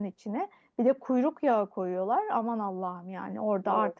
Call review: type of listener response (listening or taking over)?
listening